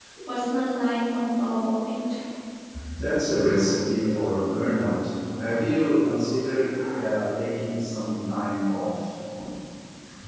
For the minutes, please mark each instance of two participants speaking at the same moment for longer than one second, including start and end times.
none

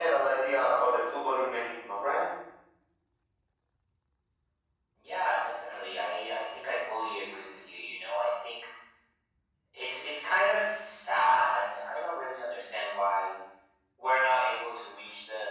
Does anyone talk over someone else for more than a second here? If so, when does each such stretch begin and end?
none

